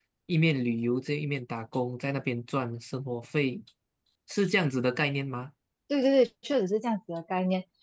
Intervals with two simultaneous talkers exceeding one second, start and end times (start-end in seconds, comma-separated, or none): none